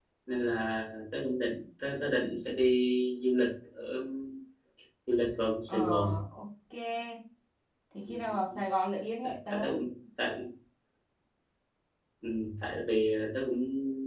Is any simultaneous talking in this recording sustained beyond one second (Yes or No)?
No